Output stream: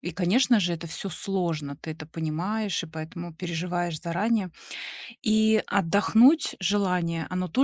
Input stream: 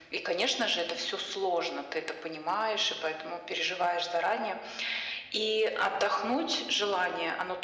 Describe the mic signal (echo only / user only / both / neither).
echo only